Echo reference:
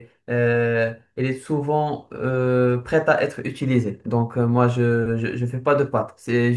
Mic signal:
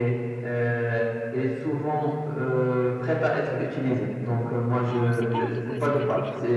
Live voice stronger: No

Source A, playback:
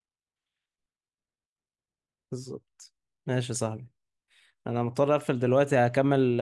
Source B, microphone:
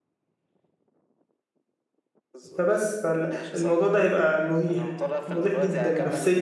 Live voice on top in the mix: Yes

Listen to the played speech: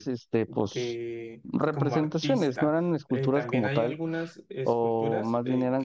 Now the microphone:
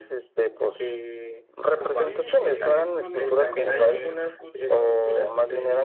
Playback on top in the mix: Yes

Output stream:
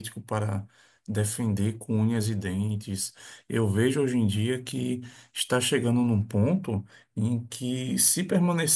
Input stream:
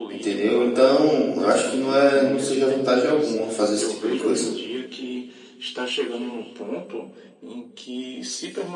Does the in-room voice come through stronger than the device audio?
Yes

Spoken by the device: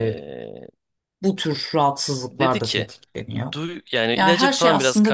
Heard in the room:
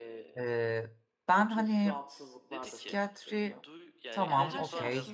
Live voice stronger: Yes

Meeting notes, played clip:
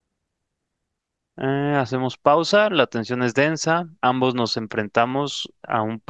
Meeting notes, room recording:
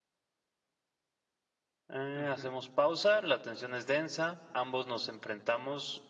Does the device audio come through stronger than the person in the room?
Yes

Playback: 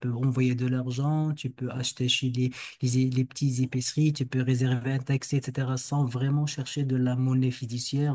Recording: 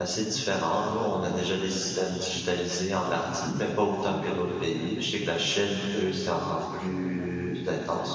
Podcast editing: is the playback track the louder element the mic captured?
No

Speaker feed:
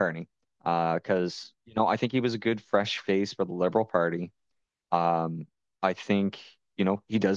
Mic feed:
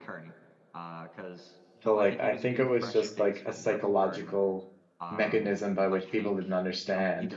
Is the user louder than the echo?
Yes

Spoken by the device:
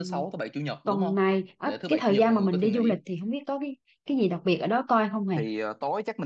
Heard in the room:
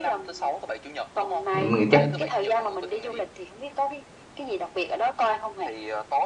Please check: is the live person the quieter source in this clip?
No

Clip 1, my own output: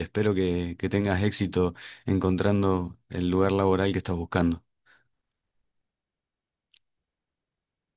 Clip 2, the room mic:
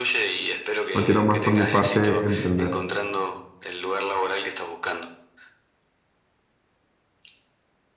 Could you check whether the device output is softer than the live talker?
Yes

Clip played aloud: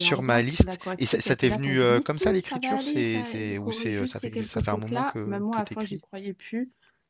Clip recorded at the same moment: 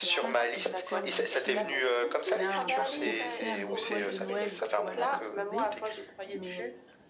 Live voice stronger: No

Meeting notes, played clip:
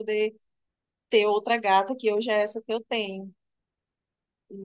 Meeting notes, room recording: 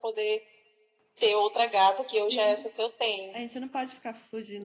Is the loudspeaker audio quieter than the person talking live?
No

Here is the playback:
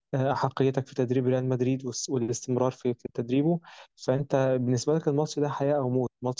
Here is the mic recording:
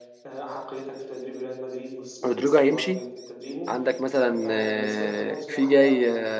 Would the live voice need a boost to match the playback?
No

